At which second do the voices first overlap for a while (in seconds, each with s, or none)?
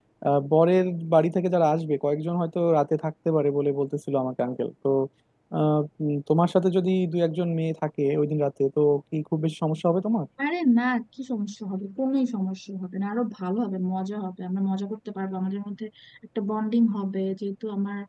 none